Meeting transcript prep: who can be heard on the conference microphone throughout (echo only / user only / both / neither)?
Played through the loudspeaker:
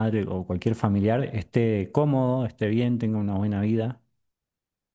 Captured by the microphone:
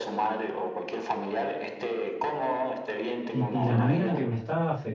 both